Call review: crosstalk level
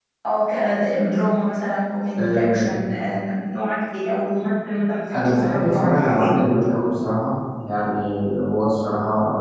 present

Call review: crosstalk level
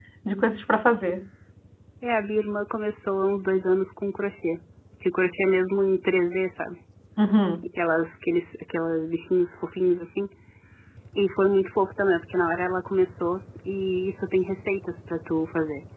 none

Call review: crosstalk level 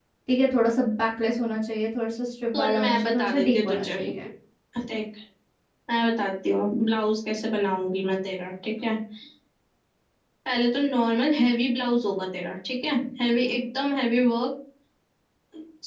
present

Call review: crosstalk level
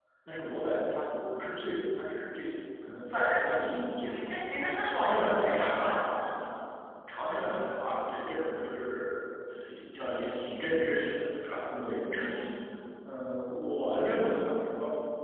present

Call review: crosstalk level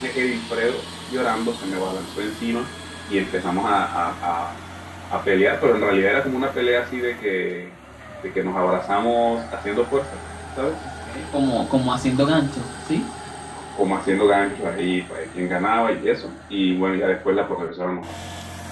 none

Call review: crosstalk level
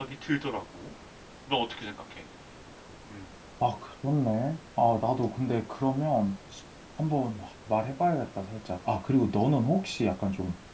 none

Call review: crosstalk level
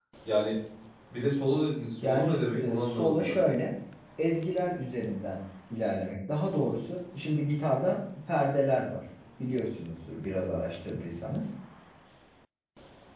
present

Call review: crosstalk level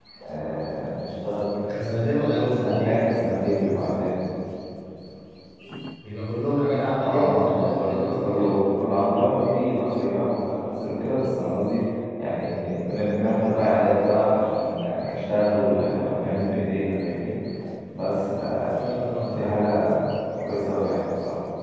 present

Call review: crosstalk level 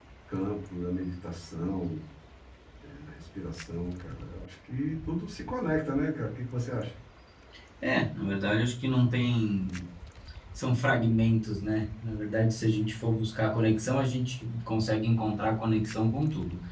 none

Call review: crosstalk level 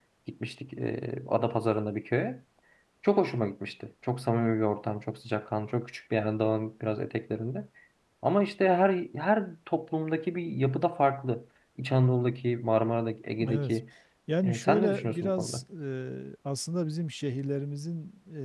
present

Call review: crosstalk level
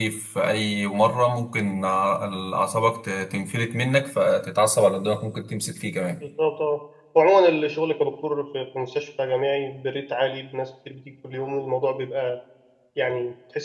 none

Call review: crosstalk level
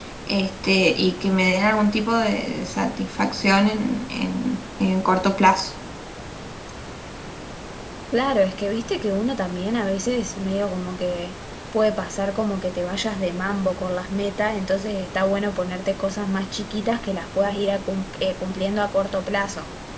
none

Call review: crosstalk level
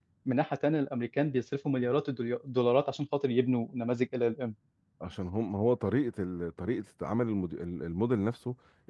none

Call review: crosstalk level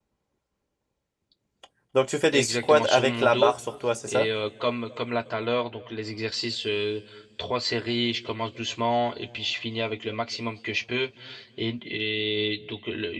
present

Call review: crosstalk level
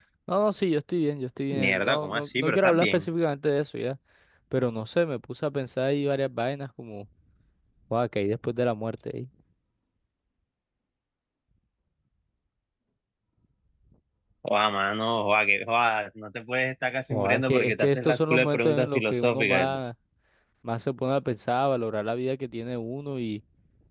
present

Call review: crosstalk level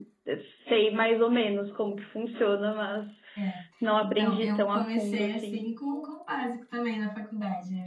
present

